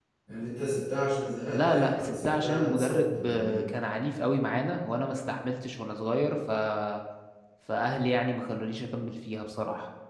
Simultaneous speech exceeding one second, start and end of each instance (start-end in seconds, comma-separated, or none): 1.5-3.6